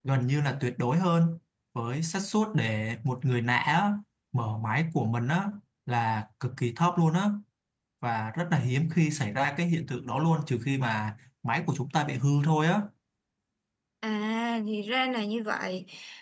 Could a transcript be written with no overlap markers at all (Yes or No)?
Yes